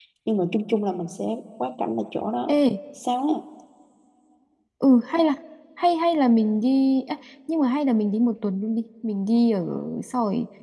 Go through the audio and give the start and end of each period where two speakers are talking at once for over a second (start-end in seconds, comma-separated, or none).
none